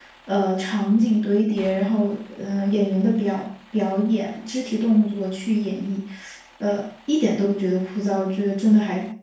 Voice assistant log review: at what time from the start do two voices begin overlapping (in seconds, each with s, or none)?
none